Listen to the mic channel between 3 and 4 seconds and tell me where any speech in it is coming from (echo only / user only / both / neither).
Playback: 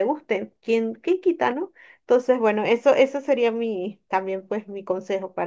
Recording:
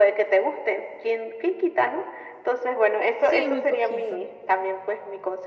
both